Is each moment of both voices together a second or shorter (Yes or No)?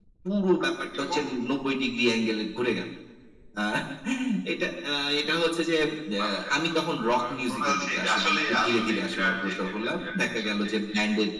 No